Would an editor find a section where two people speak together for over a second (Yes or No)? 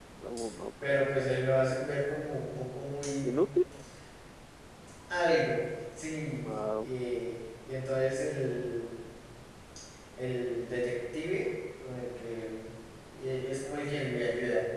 No